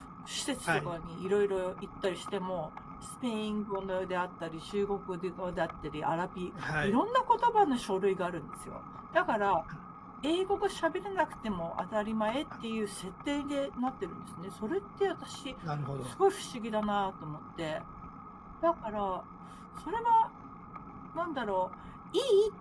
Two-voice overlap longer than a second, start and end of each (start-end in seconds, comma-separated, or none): none